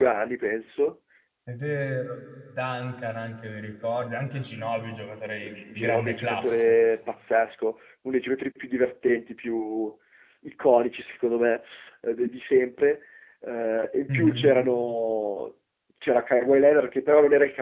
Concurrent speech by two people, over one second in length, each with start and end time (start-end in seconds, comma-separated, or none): 5.4-6.7